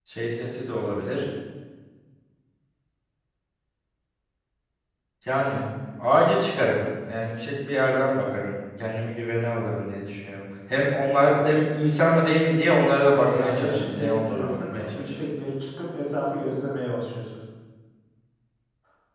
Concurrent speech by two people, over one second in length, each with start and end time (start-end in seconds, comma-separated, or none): 13.1-15.1